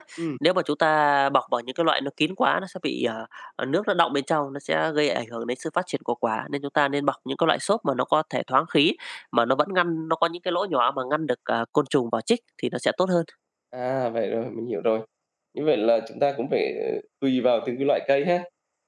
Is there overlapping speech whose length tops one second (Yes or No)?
No